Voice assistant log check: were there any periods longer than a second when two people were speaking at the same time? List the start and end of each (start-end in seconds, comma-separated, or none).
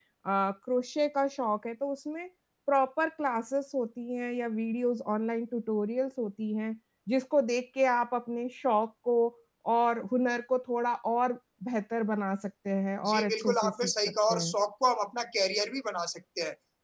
13.1-14.5